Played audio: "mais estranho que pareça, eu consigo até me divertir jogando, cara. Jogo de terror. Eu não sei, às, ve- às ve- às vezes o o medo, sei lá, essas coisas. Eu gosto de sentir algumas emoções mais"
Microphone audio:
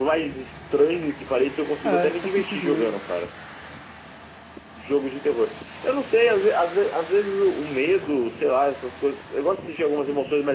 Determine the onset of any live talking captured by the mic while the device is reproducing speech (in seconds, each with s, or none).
1.8 s